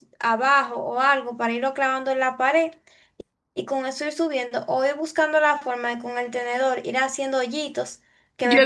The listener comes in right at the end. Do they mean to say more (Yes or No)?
Yes